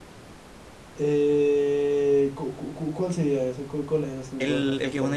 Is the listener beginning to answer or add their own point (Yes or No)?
Yes